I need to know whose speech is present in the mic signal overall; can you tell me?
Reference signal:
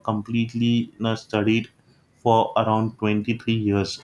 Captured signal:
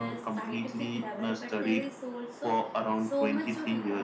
both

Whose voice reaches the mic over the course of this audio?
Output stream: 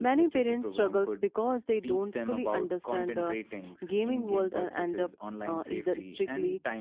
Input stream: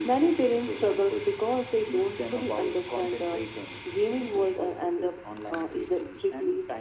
echo only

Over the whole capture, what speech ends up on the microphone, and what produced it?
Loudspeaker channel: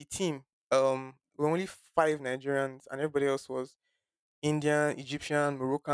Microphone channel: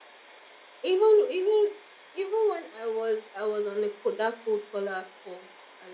user only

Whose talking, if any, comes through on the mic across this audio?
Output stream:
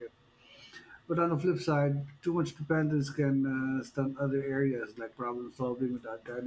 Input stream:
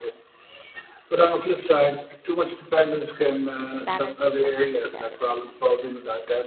both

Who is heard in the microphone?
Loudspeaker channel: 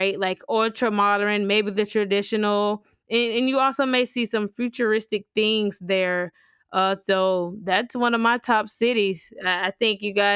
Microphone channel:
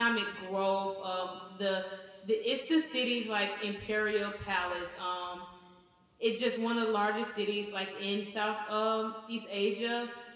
user only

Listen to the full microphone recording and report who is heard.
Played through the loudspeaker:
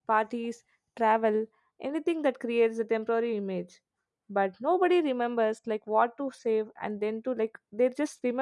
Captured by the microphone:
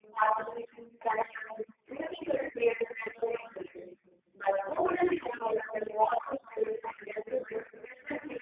echo only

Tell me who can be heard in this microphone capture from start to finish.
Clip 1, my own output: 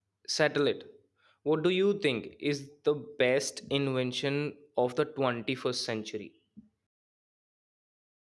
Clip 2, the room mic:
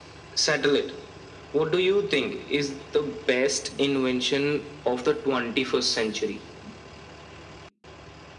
echo only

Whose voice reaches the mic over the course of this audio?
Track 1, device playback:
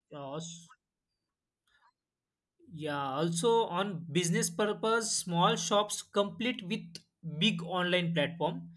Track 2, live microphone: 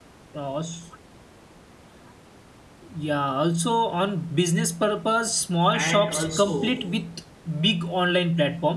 both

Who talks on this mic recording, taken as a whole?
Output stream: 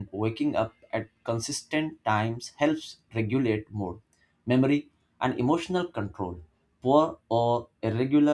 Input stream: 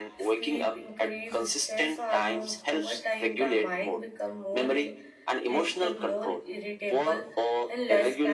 both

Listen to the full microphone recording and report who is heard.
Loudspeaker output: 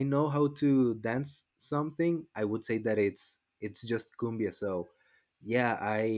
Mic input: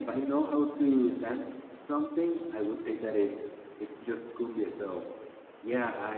echo only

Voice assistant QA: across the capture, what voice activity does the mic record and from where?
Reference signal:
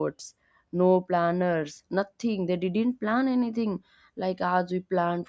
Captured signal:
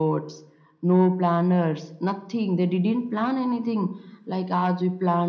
echo only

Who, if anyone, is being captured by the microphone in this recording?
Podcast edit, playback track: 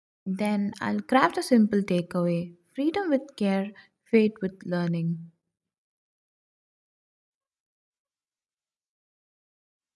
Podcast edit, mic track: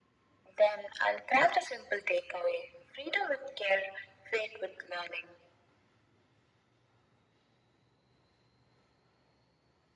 echo only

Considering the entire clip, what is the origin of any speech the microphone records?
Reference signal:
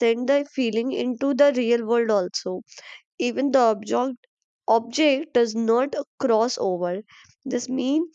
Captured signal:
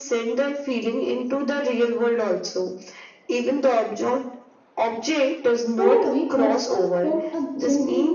both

